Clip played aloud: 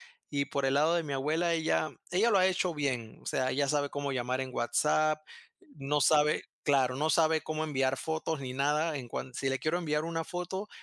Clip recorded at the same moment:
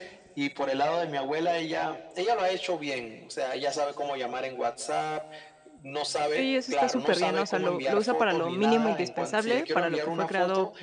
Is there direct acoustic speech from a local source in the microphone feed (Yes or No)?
Yes